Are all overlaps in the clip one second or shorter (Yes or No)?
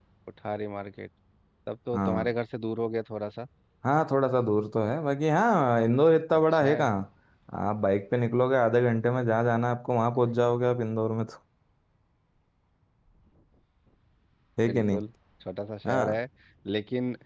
Yes